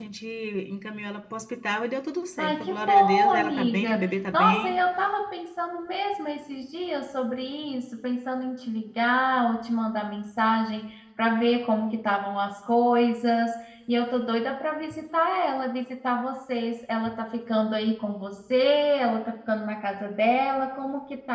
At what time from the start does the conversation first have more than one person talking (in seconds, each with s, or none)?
2.4 s